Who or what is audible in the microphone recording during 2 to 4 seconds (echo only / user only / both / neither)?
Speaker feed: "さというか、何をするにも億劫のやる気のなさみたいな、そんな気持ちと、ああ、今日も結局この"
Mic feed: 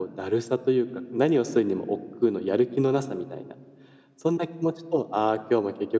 echo only